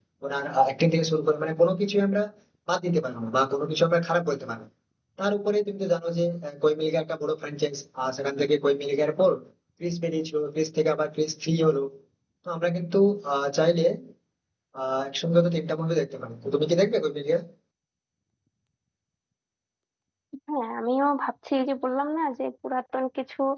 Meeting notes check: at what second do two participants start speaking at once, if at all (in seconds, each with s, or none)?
none